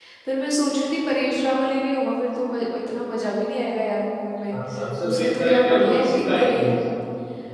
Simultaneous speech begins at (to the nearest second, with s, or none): 5 s